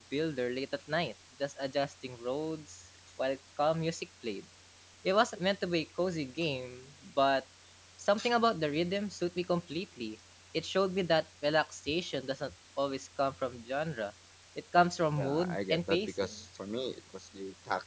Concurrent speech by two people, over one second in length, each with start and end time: 15.2-16.4

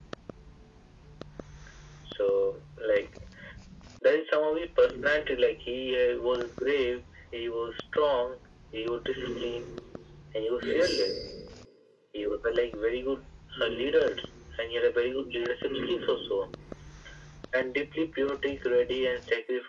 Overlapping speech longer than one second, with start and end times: none

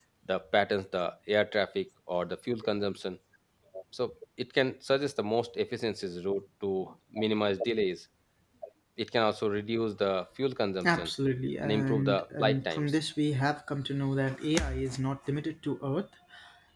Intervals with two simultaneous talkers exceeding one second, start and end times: 11.6-13.0

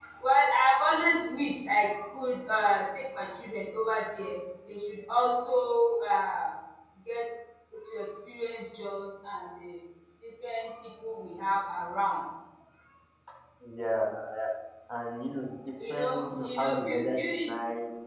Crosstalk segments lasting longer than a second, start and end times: 15.9-17.5

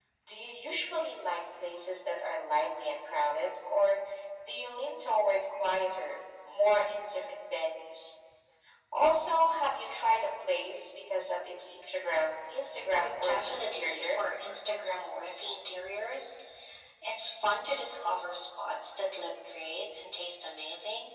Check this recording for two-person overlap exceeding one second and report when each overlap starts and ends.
12.9-14.2

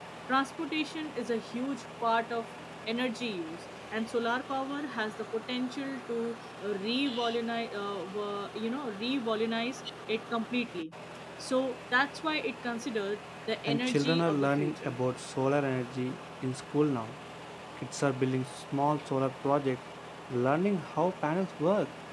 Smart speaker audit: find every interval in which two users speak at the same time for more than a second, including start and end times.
13.7-15.0

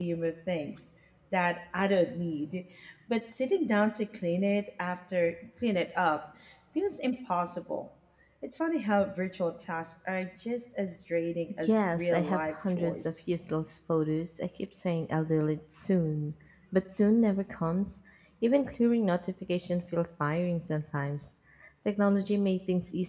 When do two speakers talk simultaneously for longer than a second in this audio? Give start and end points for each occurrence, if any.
11.6-13.1

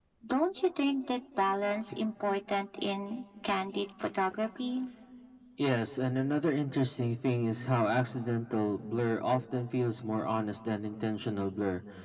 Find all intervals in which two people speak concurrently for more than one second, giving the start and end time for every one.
none

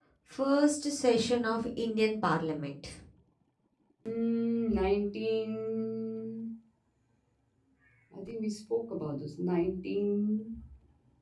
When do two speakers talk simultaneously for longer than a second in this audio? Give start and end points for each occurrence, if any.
none

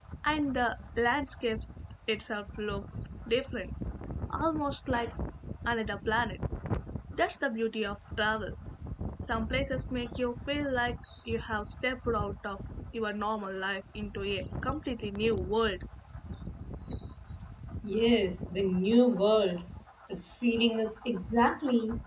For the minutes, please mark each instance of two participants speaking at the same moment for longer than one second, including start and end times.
none

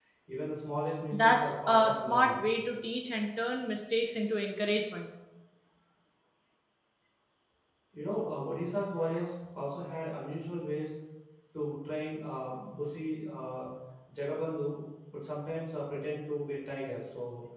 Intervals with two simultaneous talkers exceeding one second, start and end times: 1.1-2.5

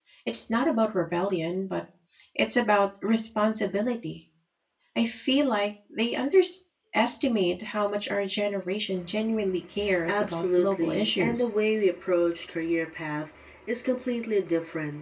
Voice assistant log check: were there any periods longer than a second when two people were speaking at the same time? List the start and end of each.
10.1-11.5

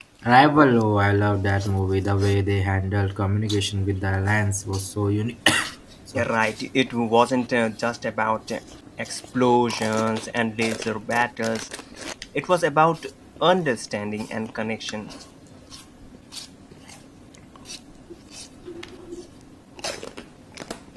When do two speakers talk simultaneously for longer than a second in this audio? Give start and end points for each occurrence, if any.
none

